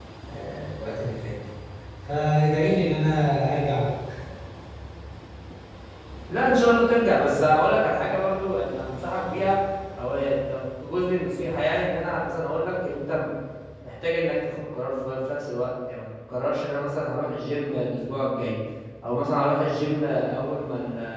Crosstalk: none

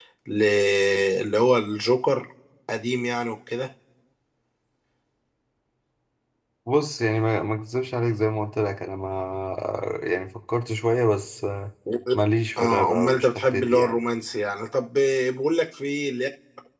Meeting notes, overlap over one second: present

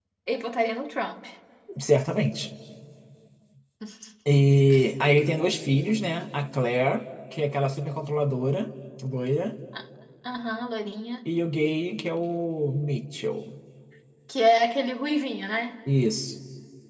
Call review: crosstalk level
none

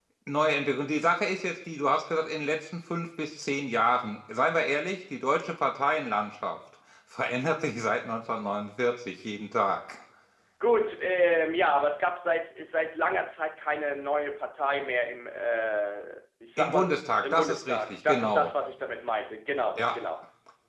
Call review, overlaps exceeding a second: present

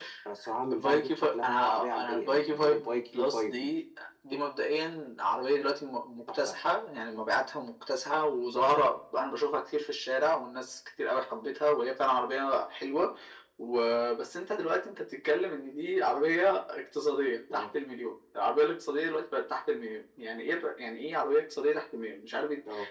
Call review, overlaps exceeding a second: present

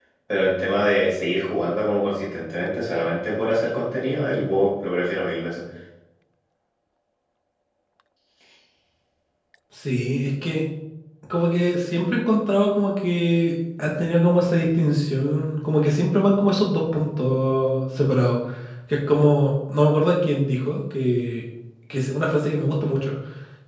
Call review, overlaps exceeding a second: none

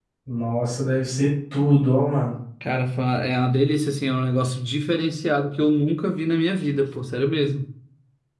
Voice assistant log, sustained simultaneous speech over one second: none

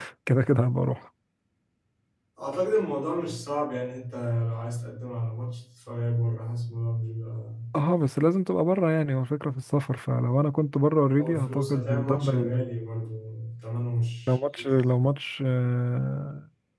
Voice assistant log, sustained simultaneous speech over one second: present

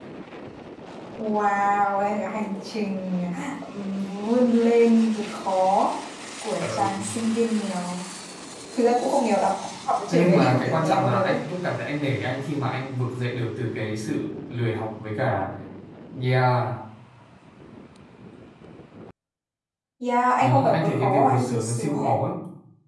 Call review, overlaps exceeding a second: present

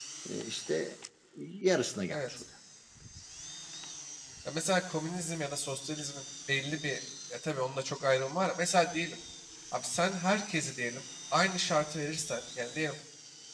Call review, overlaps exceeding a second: none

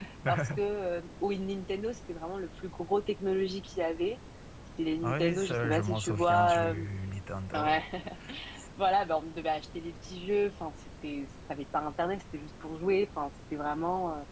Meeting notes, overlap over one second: present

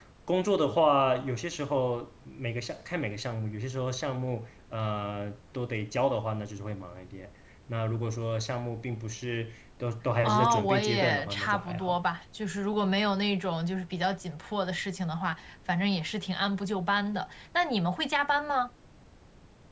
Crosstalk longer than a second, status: present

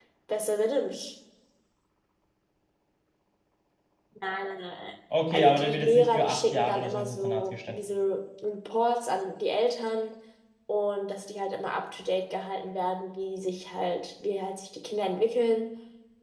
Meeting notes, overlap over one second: present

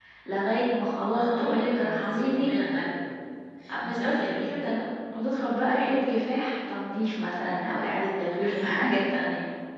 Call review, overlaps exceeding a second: present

